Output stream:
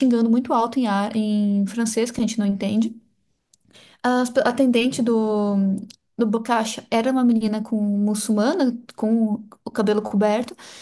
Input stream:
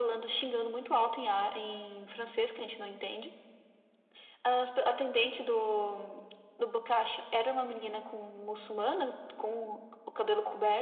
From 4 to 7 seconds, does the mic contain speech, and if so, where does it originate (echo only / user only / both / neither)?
echo only